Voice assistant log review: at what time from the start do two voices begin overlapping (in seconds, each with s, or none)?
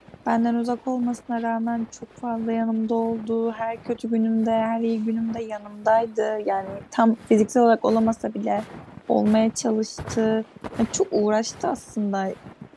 none